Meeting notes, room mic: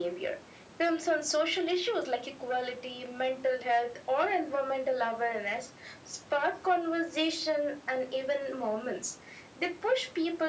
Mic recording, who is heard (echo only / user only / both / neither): echo only